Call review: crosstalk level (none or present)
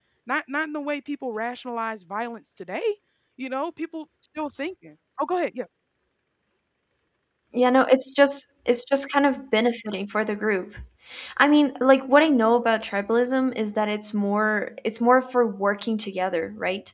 none